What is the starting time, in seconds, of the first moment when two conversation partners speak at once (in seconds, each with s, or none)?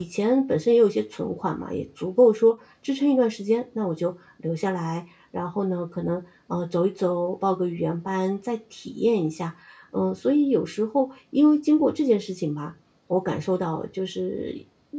none